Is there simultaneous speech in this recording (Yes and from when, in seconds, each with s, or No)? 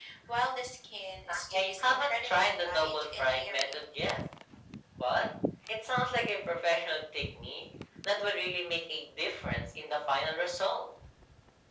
Yes, from 1.3 s